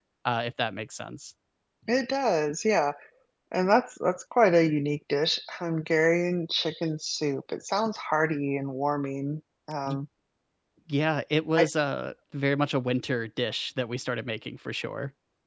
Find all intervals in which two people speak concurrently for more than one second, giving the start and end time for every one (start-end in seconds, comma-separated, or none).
none